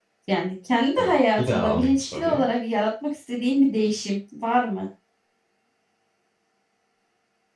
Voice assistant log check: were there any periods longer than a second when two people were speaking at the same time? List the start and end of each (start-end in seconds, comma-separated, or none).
1.0-2.5